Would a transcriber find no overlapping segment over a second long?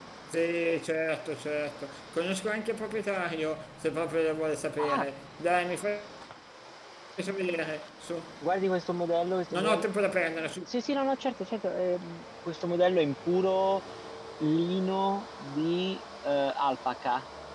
Yes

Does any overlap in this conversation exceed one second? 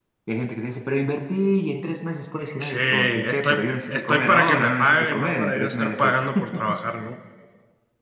Yes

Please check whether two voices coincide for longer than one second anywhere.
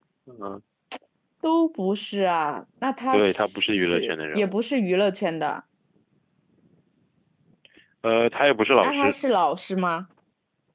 Yes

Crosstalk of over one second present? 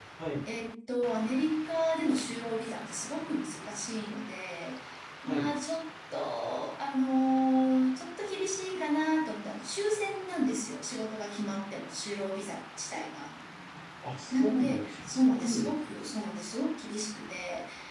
Yes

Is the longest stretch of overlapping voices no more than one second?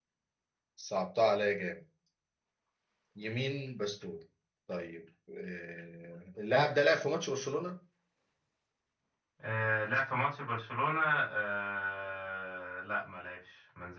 Yes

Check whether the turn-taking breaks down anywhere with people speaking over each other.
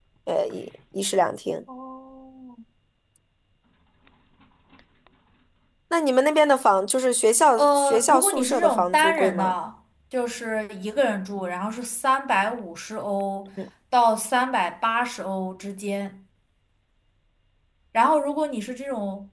Yes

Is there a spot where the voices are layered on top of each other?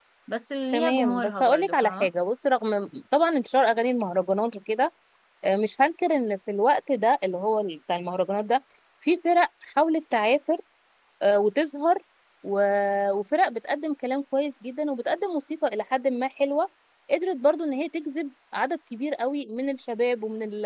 Yes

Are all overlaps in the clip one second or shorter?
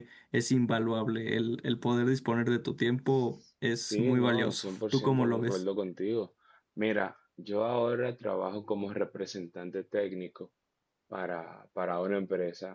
No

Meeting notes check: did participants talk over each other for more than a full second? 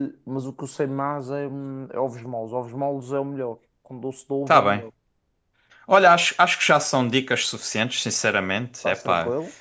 No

